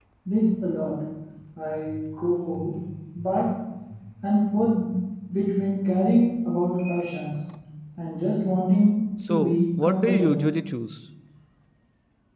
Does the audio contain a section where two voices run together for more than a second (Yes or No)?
Yes